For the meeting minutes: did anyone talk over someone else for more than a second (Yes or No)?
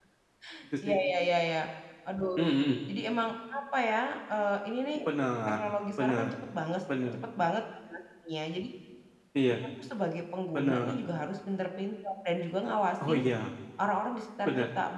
No